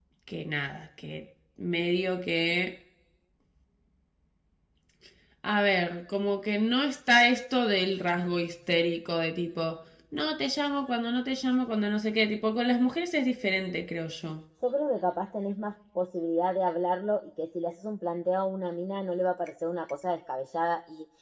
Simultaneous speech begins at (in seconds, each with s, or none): none